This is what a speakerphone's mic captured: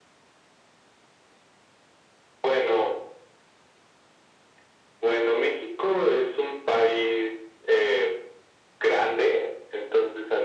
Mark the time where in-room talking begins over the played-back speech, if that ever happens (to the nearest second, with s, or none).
none